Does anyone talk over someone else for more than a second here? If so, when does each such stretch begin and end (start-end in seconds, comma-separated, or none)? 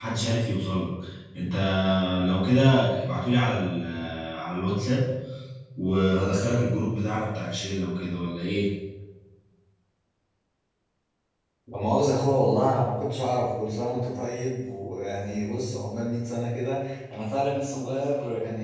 none